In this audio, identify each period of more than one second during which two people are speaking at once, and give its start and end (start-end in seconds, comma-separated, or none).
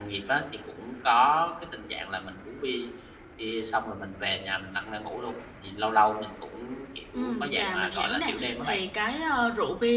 7.1-8.8